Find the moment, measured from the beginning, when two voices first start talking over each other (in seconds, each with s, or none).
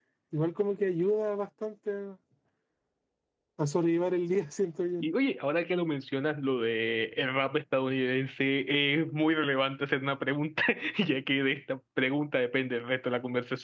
none